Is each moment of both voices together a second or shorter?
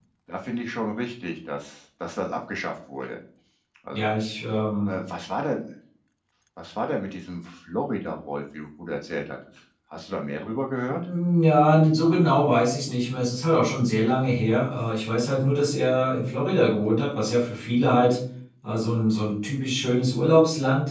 Yes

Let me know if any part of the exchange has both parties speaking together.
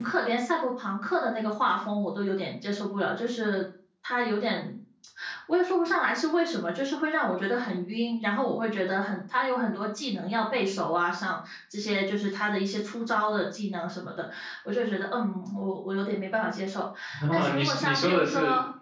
Yes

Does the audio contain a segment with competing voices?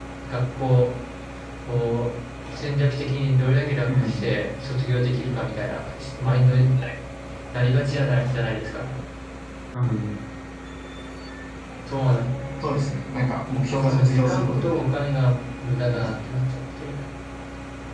Yes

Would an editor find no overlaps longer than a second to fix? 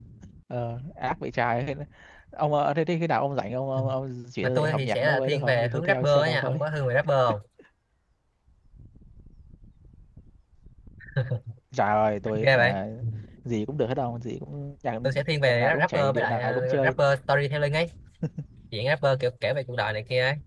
No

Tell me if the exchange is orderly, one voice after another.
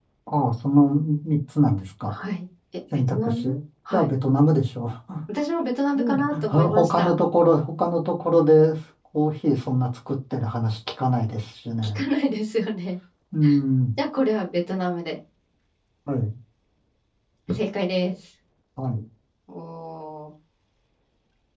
No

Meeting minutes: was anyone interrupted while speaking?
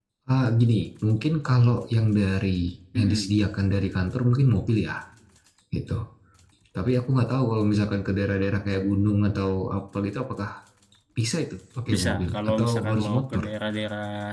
Yes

